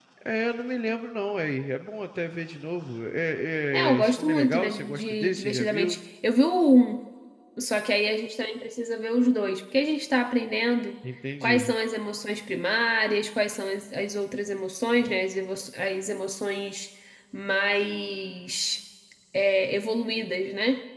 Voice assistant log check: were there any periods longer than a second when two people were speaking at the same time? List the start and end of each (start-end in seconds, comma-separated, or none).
3.7-6.0